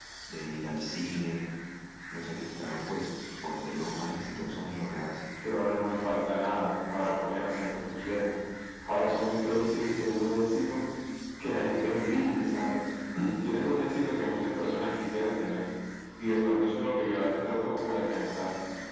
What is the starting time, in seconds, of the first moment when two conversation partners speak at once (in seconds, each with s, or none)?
none